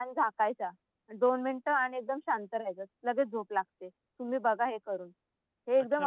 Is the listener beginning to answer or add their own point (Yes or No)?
Yes